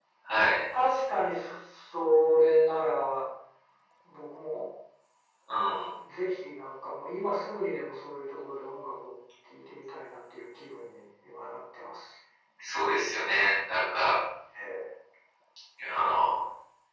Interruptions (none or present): none